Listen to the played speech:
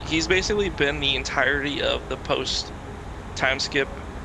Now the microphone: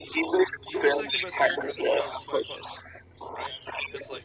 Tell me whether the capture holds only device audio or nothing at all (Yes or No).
No